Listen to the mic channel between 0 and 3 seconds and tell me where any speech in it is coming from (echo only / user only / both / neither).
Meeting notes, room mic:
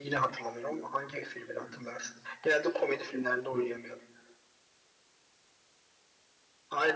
echo only